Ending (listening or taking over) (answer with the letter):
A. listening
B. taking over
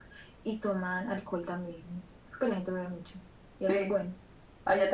B